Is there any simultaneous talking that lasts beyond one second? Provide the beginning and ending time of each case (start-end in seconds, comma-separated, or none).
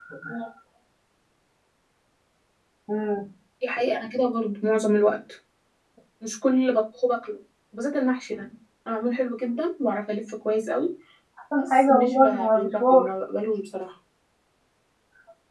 11.6-13.1